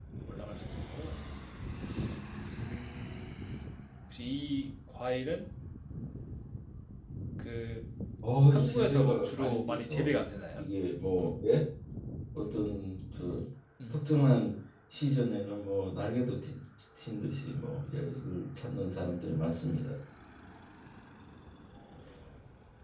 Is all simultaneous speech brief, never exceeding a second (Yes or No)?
No